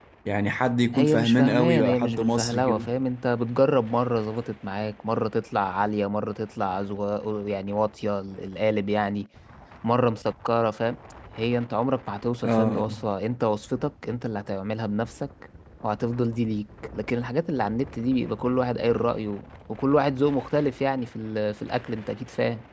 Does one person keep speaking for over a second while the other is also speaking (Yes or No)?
Yes